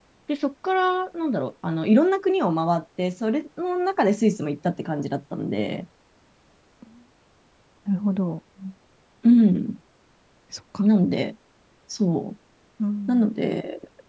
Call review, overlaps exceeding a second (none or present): none